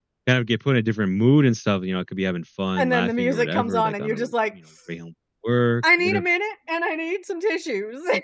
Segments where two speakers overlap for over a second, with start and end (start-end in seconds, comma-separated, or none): 2.8-4.3